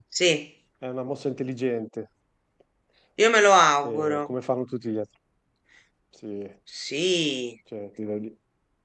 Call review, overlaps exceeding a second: none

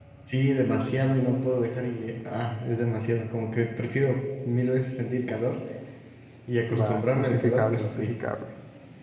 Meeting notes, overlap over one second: present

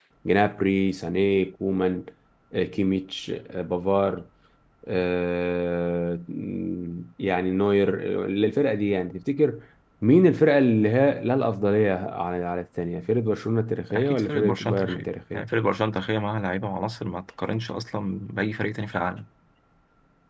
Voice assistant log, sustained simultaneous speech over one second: present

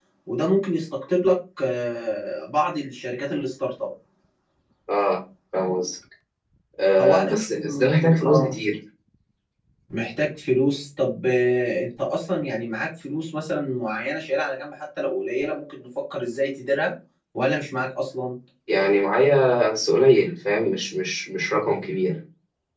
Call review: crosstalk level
present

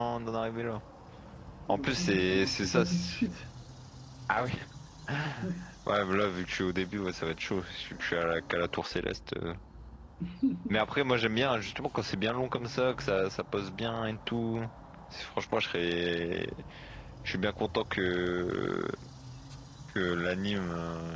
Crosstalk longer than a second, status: present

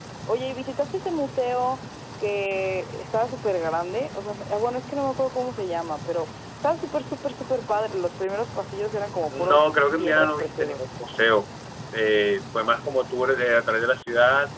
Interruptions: present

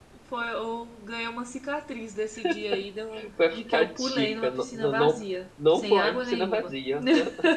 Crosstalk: present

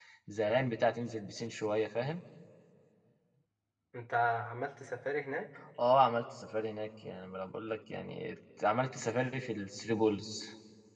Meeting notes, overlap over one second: none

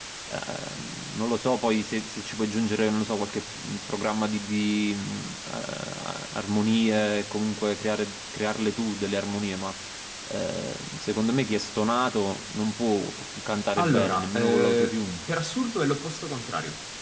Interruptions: present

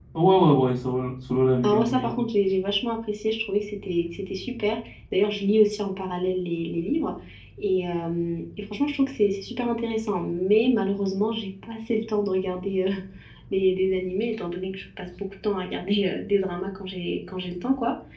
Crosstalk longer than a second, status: none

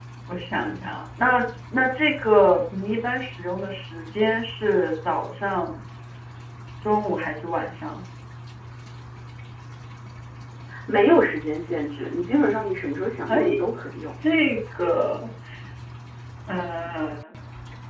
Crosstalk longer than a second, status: none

